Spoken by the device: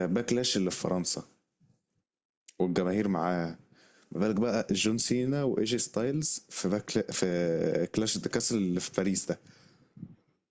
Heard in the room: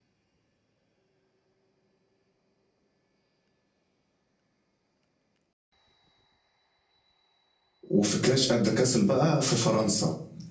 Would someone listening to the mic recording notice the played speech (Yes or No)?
No